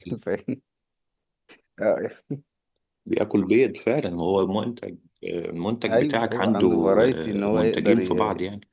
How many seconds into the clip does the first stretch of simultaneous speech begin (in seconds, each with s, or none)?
5.9 s